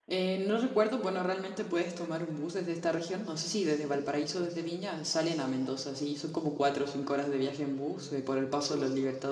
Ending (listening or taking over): listening